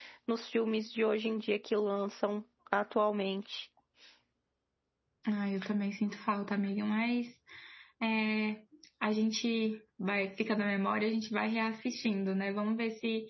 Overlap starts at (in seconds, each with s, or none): none